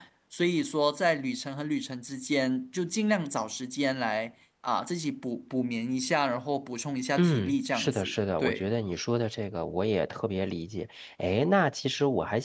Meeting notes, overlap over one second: present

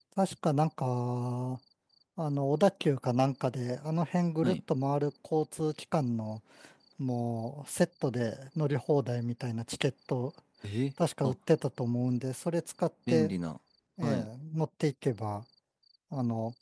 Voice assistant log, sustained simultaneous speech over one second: none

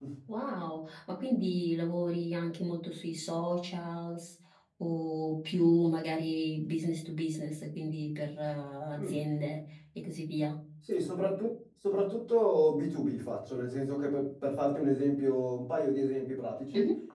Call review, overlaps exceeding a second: none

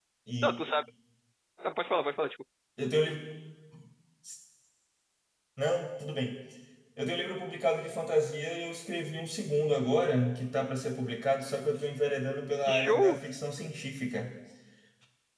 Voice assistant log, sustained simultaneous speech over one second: none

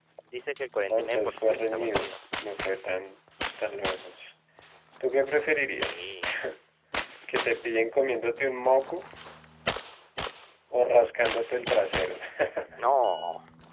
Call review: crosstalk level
present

